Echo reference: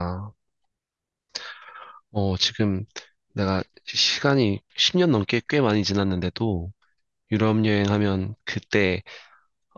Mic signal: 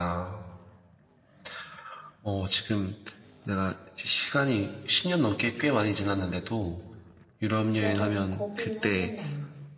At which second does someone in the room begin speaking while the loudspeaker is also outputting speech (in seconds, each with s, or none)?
7.8 s